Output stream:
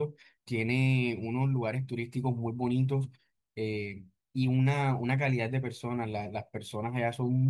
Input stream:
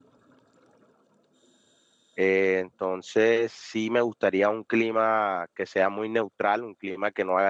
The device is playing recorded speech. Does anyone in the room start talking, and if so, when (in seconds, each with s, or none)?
2.1 s